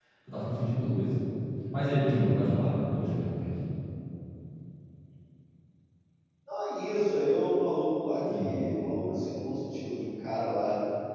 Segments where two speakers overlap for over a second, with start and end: none

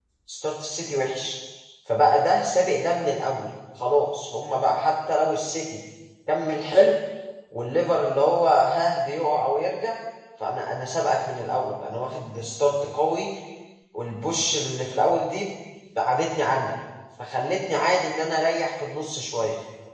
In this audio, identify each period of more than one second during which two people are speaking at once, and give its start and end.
none

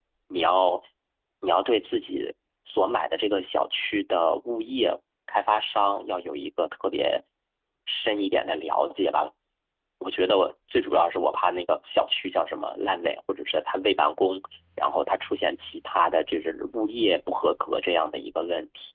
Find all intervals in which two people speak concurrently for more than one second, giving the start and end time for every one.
none

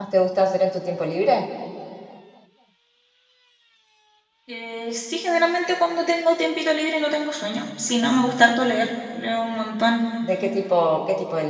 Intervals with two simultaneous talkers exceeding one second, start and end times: none

